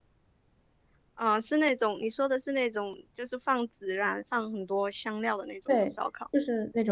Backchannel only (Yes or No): No